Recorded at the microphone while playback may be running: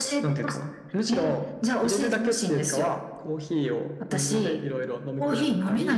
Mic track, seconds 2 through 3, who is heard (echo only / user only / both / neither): echo only